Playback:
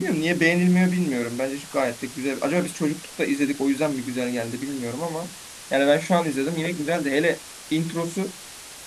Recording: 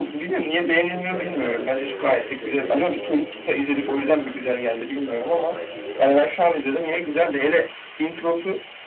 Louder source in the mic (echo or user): echo